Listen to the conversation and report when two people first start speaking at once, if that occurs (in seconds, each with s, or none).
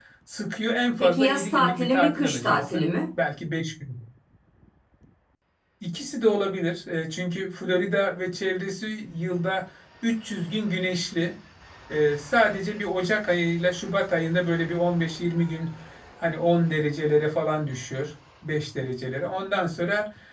1.0 s